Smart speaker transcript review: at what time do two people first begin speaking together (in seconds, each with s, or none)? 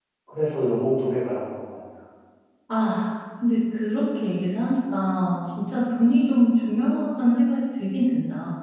none